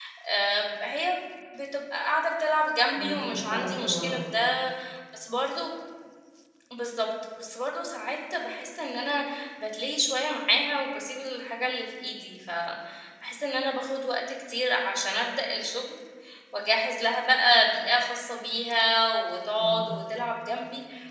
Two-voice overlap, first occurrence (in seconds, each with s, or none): 2.9 s